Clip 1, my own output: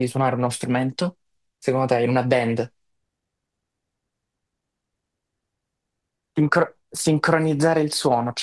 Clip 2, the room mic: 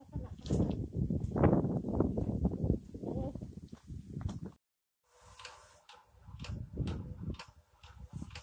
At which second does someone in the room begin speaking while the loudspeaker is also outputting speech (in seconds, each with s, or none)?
none